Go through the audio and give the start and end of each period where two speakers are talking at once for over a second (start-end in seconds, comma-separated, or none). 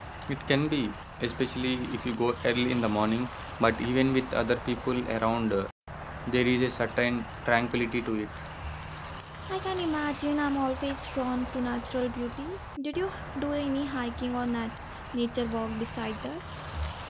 none